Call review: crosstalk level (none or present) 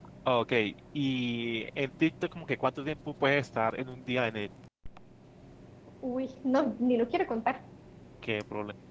none